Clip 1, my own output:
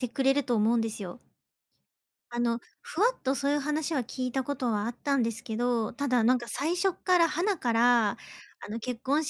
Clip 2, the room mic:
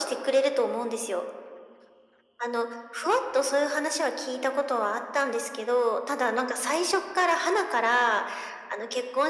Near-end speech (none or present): none